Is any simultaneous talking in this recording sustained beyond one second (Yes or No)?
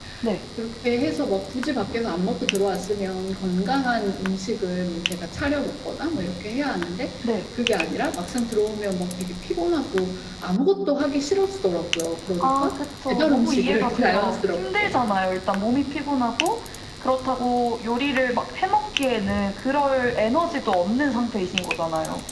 Yes